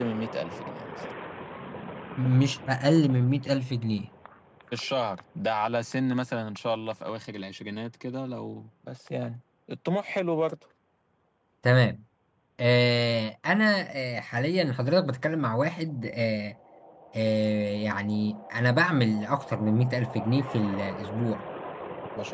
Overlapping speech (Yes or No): No